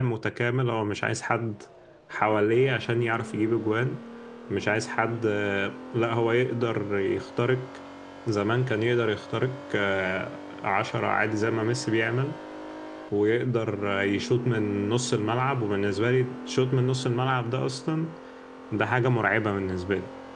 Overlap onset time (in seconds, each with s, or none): none